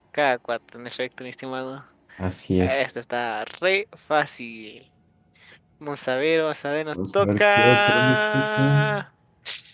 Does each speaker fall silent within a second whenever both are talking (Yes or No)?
No